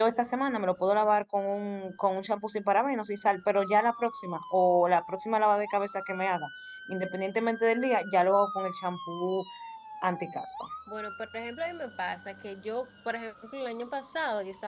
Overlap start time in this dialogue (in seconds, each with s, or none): none